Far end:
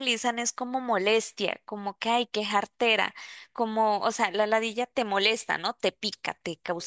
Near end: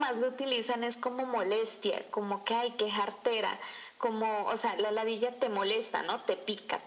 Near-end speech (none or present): none